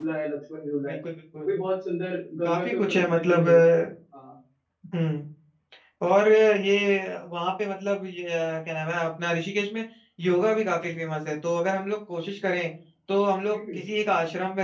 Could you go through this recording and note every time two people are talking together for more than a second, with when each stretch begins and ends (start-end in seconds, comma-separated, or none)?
2.4-3.7